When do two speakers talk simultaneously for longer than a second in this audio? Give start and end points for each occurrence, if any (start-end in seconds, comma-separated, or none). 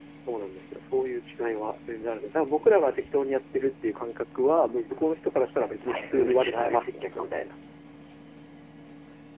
5.8-7.3